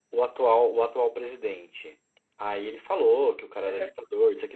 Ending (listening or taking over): listening